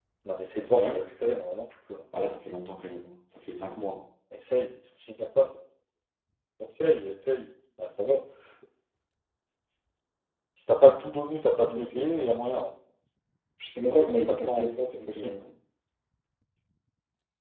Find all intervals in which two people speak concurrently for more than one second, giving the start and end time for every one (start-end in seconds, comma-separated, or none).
13.9-15.4